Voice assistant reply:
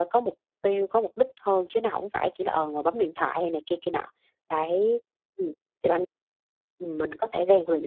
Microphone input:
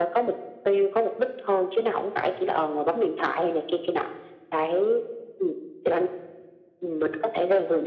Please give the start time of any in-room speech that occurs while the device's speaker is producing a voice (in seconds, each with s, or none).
none